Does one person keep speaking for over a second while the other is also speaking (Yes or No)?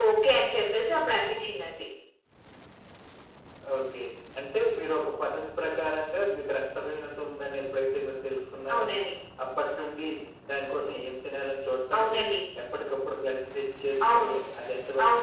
No